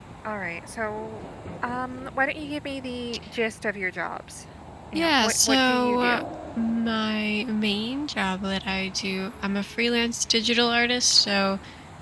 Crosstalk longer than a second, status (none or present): present